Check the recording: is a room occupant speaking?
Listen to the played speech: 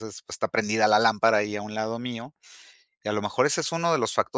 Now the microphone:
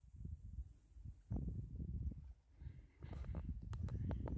No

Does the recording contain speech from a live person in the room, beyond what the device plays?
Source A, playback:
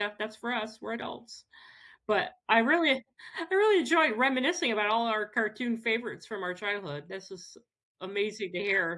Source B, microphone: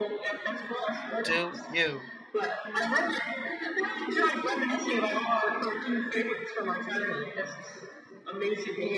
Yes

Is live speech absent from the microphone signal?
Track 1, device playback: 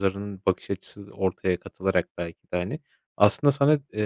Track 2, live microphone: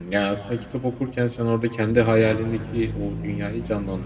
No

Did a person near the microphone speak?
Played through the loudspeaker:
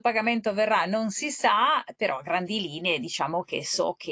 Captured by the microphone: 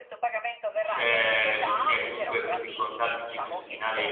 Yes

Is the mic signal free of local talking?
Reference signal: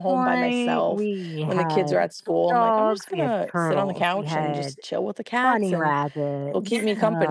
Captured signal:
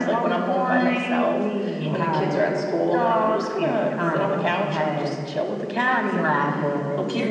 Yes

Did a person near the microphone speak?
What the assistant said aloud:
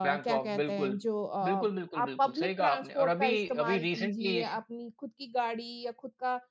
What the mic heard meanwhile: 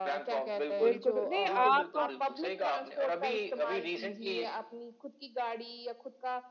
Yes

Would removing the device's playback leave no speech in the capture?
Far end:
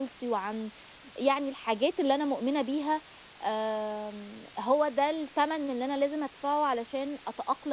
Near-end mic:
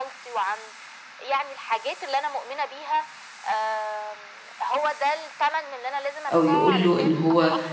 No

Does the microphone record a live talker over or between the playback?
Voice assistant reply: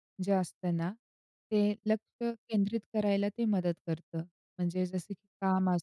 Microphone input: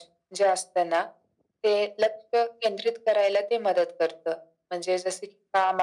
No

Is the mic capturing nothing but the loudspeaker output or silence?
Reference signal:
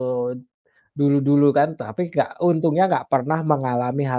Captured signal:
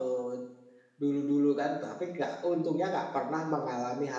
Yes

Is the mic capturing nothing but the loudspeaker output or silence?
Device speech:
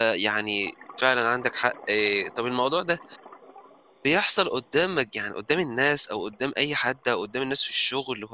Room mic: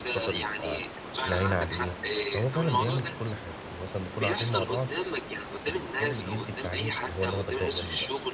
No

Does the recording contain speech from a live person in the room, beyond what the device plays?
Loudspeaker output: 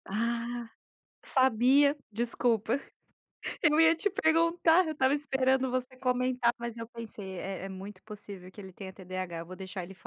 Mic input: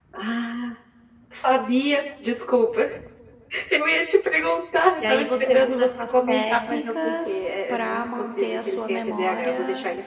Yes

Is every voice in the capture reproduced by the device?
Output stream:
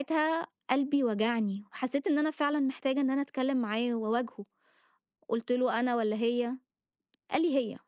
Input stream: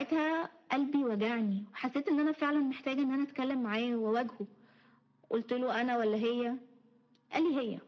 Yes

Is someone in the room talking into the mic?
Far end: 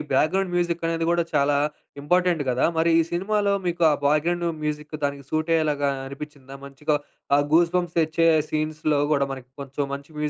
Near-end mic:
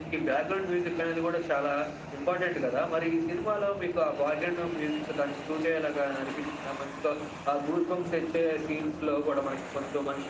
No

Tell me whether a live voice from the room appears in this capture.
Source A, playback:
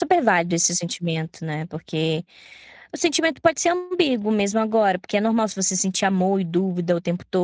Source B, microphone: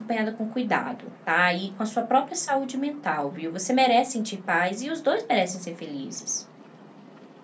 Yes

